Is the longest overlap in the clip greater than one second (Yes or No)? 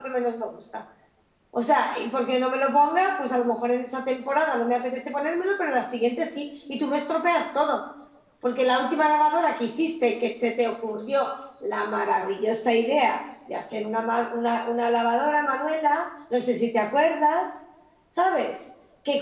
No